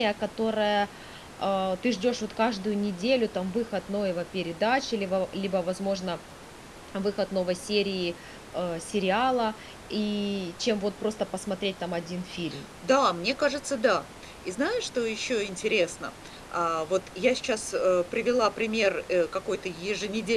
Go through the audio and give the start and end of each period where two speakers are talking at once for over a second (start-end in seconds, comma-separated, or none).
none